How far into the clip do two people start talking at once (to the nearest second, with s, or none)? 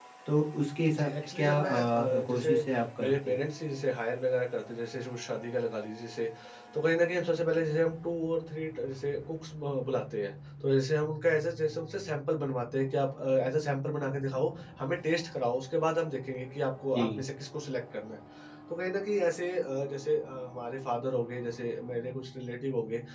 1 s